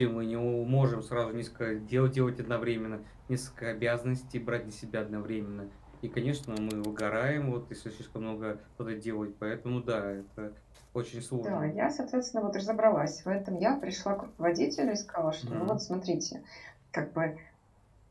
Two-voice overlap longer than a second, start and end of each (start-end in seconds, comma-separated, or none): none